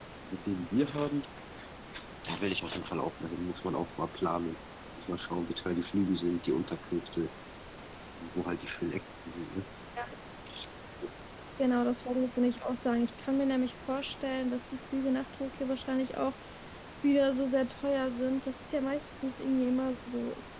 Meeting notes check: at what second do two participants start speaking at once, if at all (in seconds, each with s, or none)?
none